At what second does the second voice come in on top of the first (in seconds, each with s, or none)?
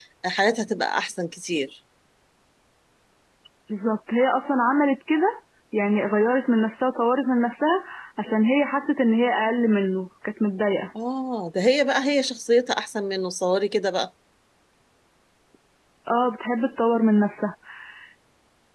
none